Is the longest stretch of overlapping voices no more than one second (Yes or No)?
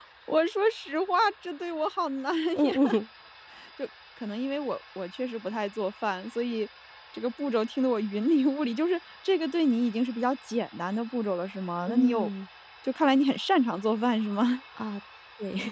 Yes